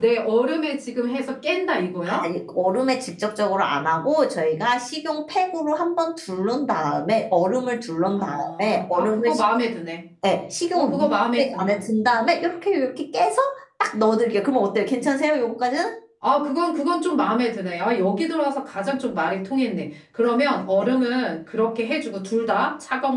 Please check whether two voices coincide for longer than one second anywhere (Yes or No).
Yes